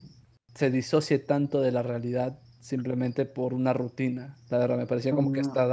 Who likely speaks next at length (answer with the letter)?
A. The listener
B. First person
A